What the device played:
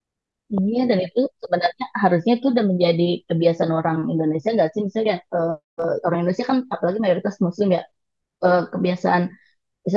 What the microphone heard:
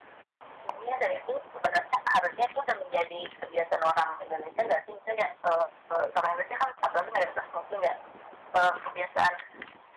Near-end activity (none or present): none